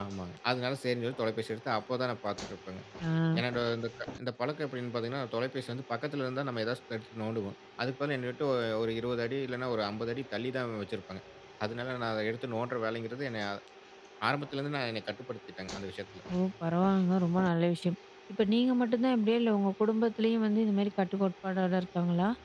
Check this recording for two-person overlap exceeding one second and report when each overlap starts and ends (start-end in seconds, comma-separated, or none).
none